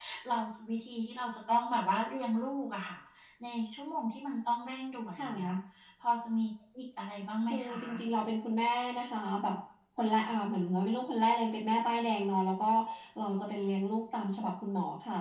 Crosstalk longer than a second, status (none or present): none